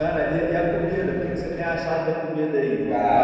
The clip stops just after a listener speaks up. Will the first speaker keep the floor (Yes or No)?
No